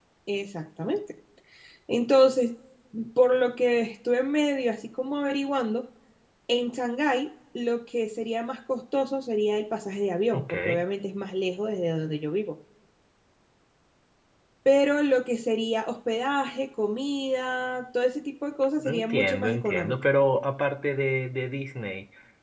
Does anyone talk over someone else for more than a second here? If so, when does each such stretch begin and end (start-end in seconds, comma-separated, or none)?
18.8-20.1